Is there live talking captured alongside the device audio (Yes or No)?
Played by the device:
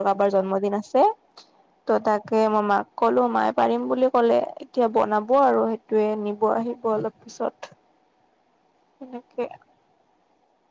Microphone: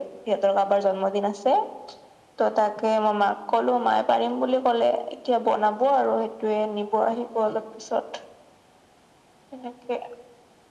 No